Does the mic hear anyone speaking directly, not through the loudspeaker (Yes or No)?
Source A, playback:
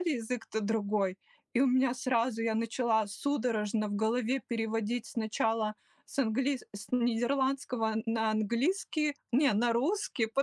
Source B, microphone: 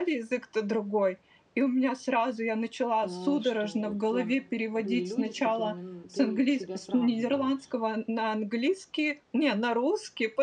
Yes